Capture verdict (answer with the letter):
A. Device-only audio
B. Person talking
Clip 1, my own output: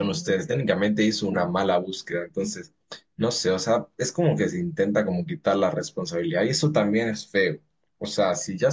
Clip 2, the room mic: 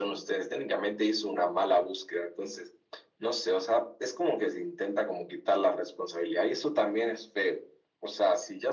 A